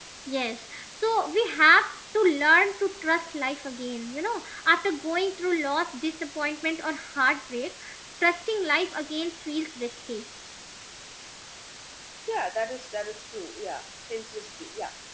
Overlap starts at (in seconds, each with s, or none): none